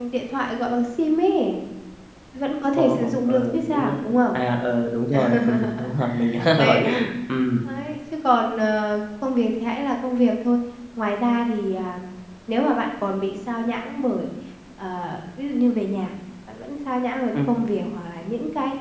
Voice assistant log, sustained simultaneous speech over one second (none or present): present